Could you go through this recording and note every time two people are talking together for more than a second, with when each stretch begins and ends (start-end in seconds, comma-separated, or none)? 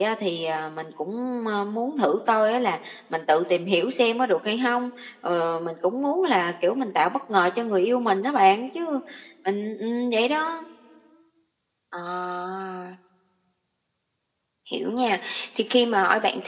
none